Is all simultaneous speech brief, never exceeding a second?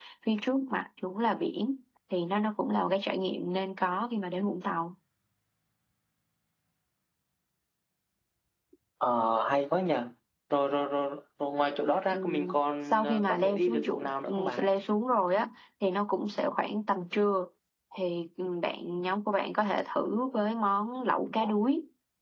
No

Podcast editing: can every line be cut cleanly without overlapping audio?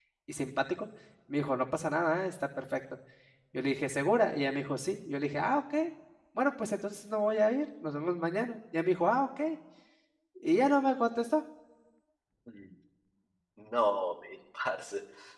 Yes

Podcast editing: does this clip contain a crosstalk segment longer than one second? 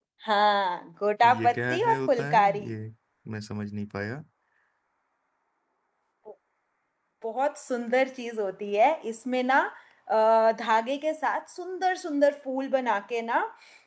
Yes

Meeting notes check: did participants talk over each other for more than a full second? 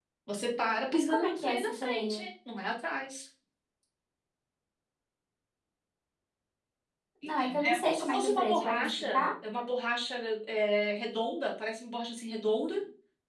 Yes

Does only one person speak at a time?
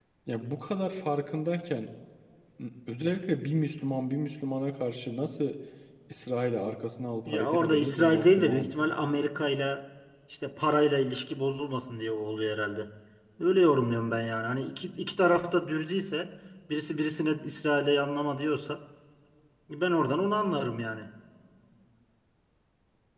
No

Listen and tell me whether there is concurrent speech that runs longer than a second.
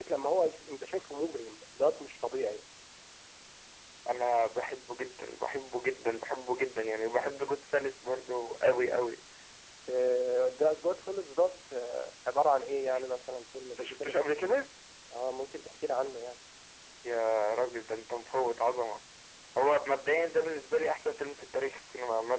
No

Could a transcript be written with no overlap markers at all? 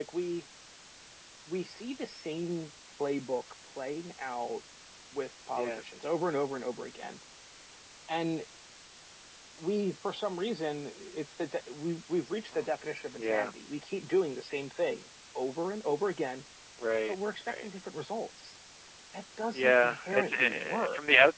No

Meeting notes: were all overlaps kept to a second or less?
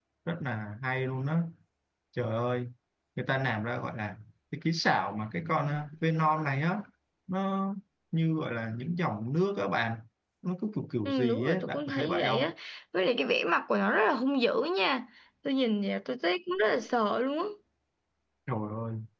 No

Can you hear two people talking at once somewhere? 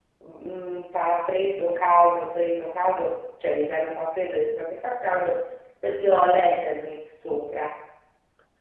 No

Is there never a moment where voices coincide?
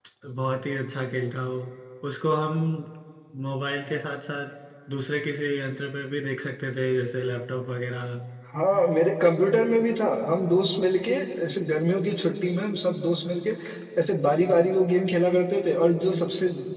Yes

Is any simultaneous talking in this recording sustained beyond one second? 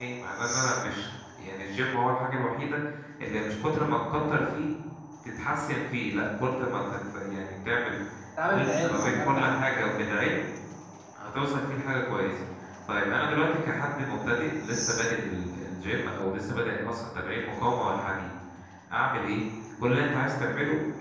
Yes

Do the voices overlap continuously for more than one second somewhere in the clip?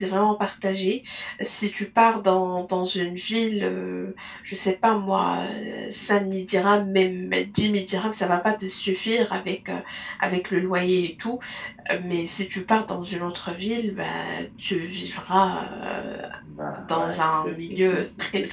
Yes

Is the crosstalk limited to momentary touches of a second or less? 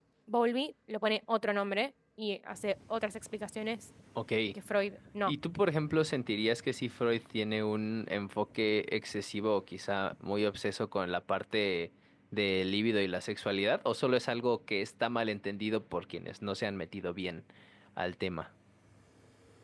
Yes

